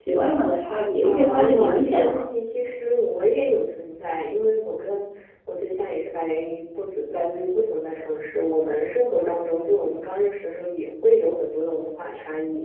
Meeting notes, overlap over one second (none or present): present